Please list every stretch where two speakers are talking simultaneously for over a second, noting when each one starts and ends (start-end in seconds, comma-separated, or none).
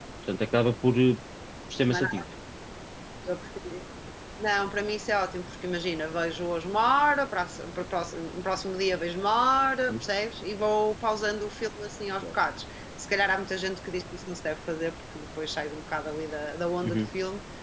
none